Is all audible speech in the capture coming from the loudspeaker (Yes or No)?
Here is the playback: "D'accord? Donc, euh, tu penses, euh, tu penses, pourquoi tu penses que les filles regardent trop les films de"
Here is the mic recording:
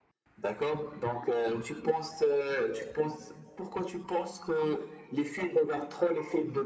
Yes